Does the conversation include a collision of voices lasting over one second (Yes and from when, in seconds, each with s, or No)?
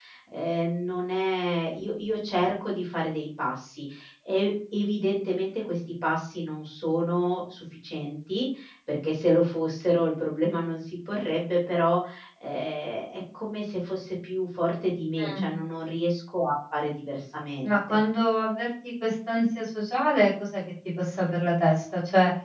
No